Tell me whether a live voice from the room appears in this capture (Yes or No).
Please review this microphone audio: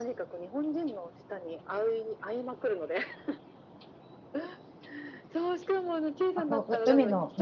Yes